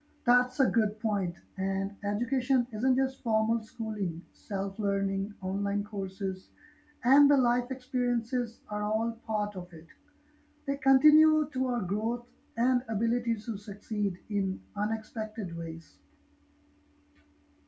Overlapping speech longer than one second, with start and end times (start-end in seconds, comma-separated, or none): none